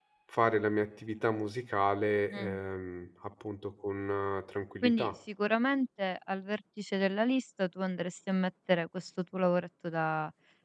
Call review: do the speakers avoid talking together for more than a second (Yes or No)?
Yes